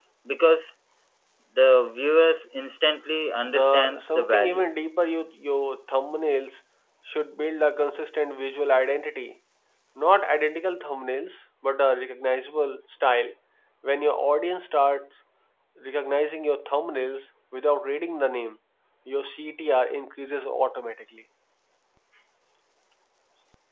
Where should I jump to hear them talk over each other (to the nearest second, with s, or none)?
3 s